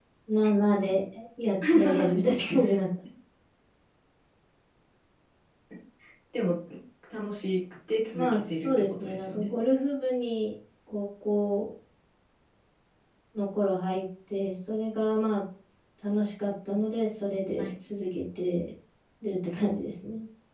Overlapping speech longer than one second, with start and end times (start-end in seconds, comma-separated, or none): 8.1-9.5